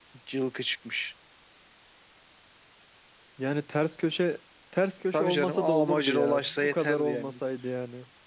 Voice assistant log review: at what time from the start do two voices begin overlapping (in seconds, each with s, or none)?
5.1 s